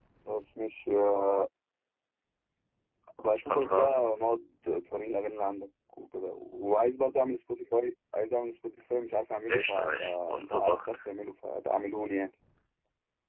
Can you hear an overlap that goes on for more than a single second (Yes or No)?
Yes